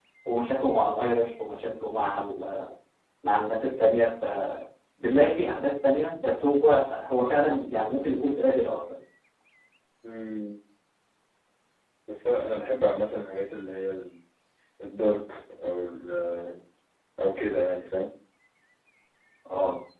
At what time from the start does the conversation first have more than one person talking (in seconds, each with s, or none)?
none